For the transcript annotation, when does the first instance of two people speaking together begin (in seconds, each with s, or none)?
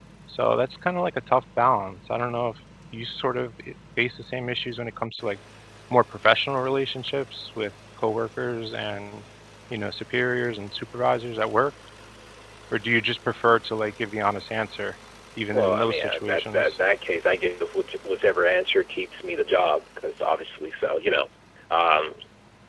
15.5 s